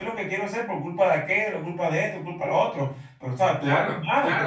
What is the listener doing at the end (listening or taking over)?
taking over